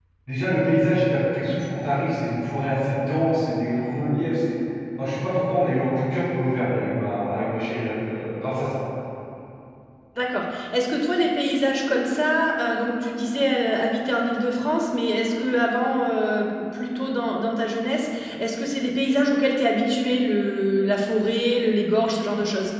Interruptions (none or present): none